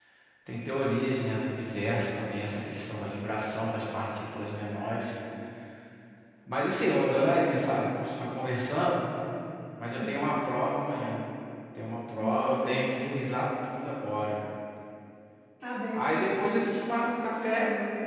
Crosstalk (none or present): present